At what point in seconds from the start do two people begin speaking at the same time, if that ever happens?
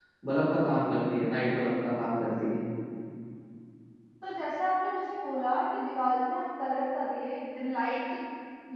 none

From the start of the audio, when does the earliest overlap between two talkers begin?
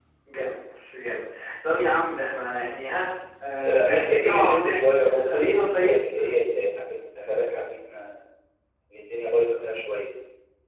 4 s

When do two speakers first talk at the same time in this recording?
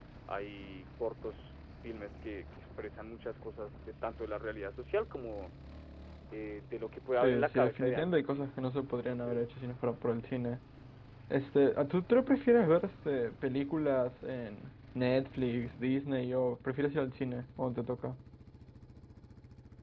7 s

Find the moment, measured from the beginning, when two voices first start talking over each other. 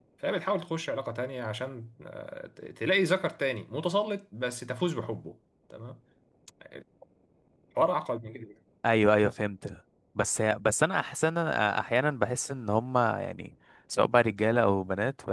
none

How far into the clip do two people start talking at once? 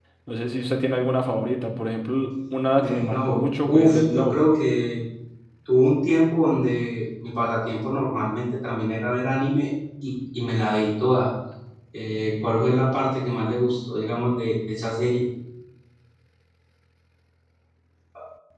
3 s

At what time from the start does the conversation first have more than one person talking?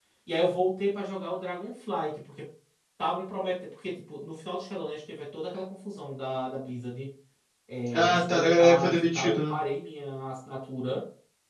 8 s

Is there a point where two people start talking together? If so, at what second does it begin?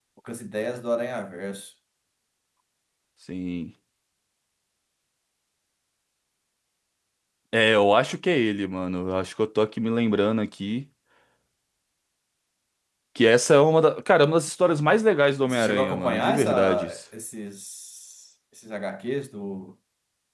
15 s

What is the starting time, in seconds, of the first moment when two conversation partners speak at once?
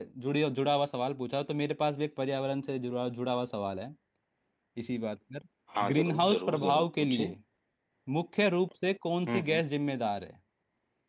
6 s

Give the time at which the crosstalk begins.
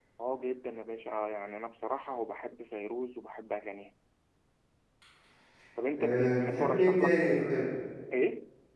6 s

